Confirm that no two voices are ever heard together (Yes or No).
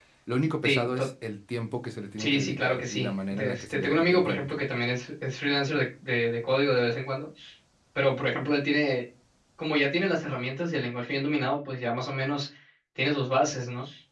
No